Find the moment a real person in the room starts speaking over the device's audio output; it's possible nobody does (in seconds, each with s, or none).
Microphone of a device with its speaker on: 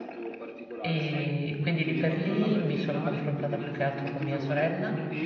0.8 s